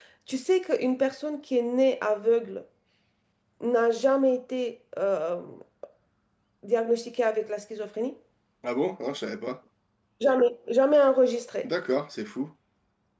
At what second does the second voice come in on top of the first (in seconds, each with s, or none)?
none